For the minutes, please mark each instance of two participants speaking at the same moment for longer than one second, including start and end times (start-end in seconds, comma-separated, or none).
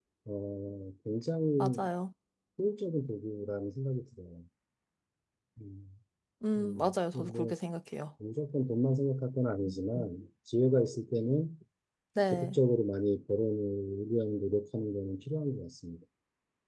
none